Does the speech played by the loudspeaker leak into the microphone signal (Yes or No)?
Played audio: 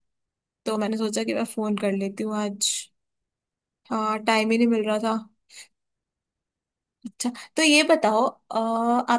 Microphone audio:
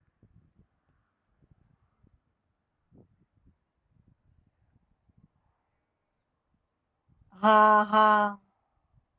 No